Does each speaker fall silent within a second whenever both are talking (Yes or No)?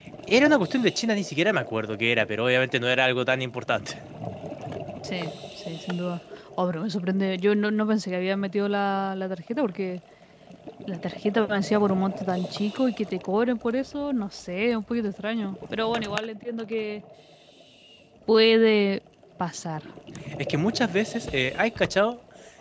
Yes